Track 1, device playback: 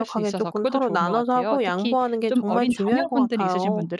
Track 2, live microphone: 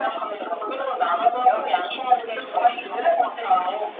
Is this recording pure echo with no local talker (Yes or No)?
Yes